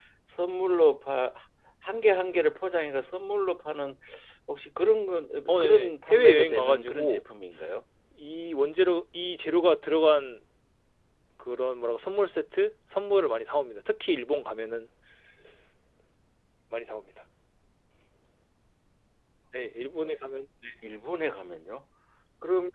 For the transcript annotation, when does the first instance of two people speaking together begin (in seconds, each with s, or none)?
5.5 s